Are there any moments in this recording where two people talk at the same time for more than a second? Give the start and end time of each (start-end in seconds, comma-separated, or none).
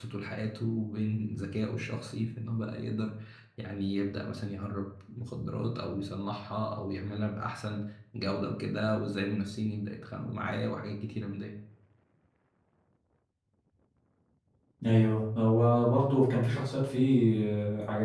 none